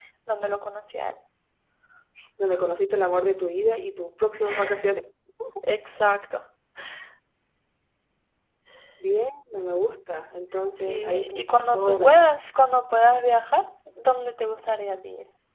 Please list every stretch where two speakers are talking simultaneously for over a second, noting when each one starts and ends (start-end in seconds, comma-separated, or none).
10.9-12.2